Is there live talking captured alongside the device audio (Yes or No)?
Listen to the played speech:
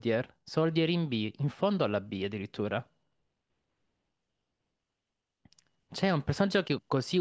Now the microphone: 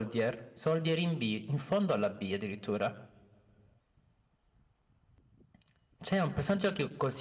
No